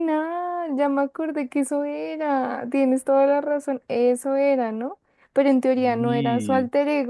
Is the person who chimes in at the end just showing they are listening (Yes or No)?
Yes